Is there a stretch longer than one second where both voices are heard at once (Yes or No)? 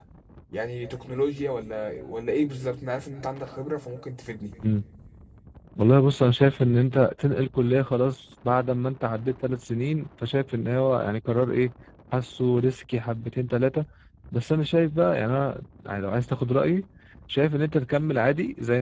No